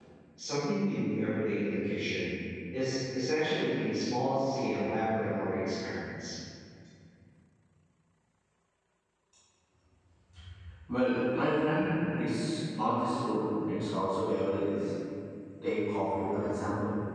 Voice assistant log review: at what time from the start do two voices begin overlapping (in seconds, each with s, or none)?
none